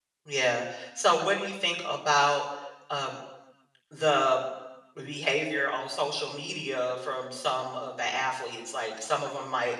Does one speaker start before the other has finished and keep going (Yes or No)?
No